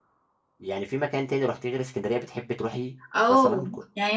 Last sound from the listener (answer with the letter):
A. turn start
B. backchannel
A